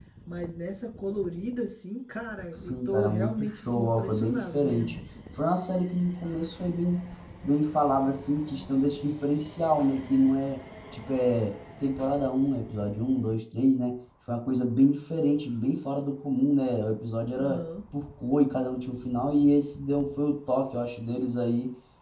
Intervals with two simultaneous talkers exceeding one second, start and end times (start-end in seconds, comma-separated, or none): 2.6-4.9